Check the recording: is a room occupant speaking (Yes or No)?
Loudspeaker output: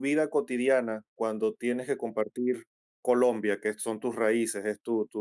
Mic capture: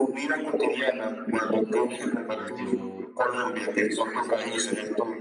Yes